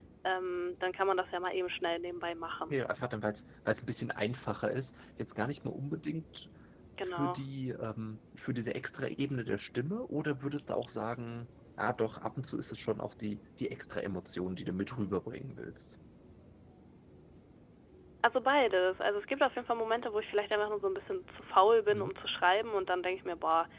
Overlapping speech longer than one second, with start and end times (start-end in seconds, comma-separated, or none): none